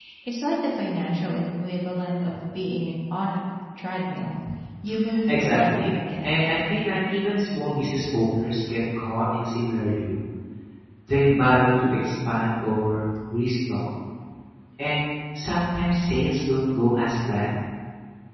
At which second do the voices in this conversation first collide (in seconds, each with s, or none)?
5.3 s